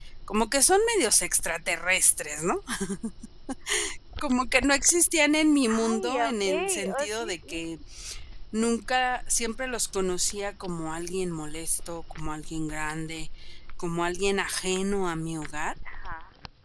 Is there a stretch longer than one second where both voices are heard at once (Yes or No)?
Yes